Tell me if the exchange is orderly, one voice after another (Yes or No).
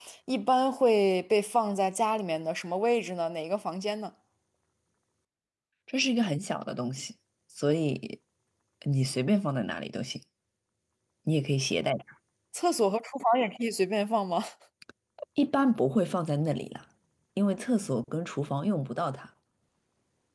Yes